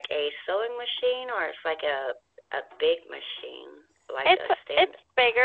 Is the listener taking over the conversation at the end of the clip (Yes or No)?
Yes